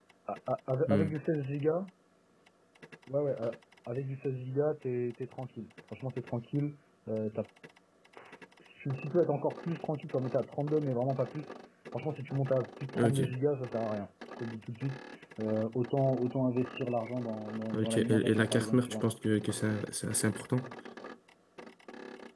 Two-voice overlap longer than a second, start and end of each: 17.7-19.0

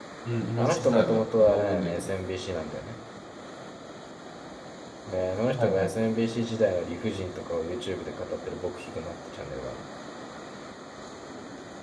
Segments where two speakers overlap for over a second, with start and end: 0.6-2.1

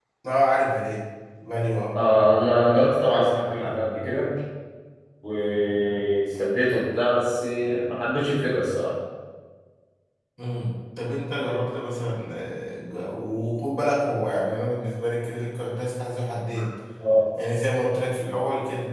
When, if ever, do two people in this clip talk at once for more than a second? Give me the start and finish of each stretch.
none

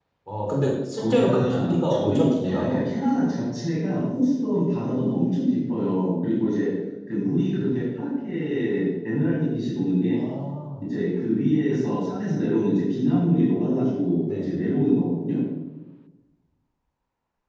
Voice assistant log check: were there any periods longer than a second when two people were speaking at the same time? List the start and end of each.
1.0-2.8

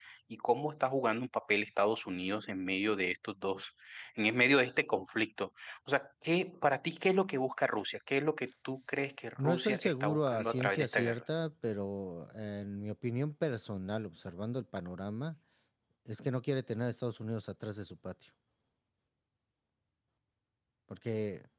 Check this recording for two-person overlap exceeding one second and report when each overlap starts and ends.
9.4-11.2

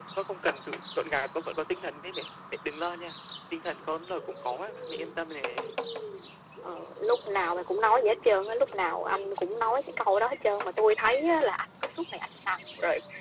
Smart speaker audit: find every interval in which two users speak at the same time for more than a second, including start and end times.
none

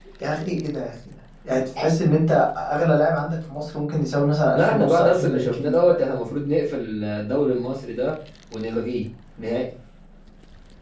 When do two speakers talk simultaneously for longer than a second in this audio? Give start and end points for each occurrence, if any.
4.5-6.0

